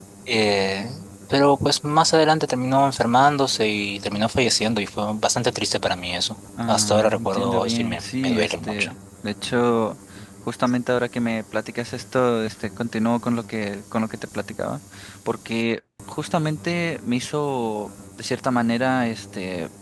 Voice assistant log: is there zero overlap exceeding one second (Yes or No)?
No